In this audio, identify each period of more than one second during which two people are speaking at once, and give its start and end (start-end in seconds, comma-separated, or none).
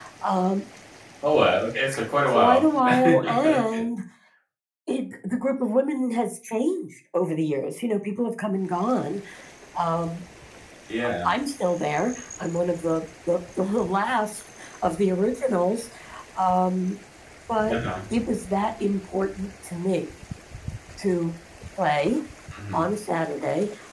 2.2-3.8